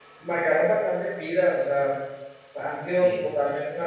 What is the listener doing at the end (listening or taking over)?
listening